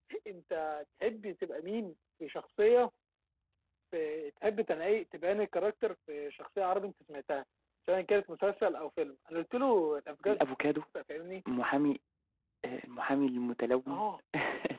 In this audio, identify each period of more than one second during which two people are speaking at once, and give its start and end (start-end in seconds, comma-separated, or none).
none